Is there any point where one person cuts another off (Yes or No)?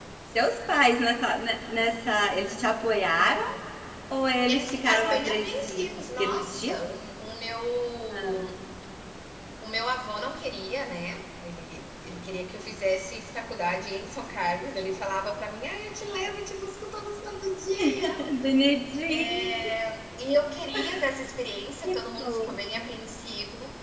Yes